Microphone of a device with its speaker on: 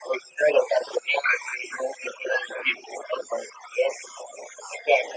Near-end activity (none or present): none